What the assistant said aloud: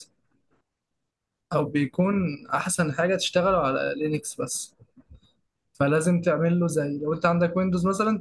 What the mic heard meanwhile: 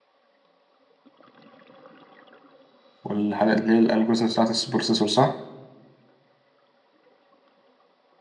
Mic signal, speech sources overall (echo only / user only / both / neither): user only